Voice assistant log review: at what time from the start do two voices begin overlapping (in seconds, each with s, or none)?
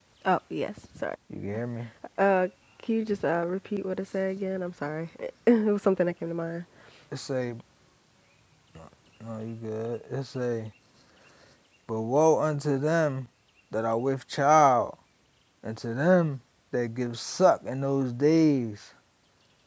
none